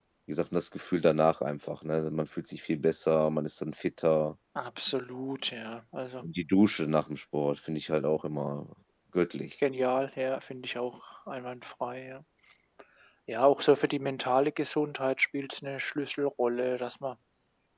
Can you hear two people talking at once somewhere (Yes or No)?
No